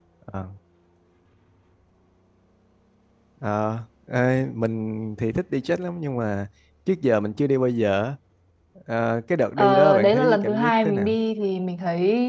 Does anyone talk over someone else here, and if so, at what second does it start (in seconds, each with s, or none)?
9.6 s